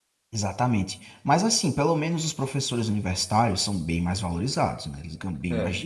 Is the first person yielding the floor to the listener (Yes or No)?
No